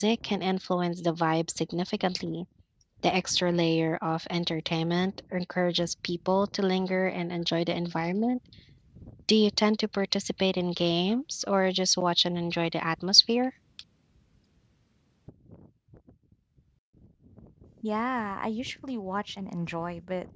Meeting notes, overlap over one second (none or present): none